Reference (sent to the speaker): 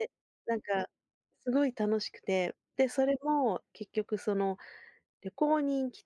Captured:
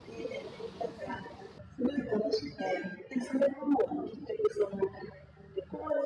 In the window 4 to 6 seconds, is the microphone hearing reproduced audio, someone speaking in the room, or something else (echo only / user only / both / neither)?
echo only